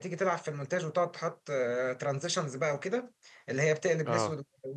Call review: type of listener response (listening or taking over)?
listening